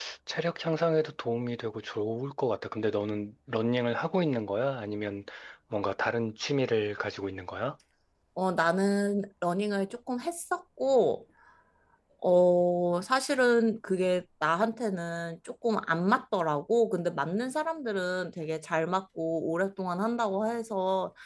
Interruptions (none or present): none